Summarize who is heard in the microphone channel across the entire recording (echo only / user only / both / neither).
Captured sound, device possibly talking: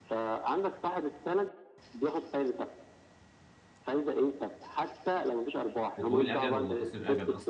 both